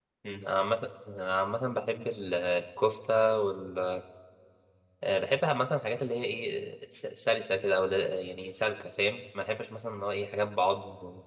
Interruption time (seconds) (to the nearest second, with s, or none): none